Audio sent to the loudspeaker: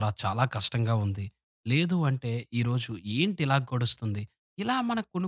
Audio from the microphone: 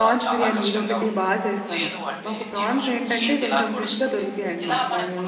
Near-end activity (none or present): present